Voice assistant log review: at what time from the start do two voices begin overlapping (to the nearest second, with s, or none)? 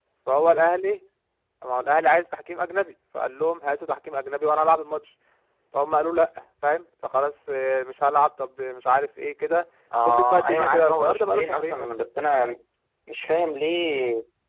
10 s